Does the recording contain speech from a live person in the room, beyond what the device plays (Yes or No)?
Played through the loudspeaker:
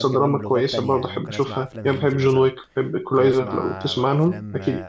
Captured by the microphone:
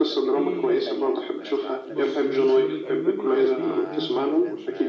Yes